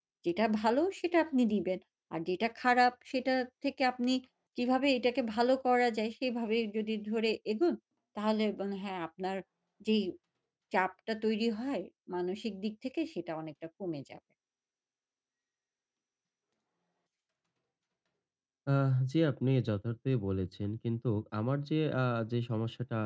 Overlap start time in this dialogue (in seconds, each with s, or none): none